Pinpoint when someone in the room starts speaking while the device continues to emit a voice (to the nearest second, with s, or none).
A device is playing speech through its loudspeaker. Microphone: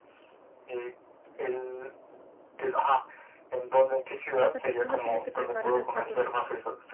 4 s